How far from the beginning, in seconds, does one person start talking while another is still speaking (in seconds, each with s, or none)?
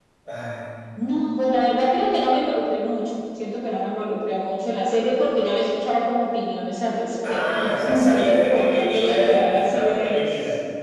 7.2 s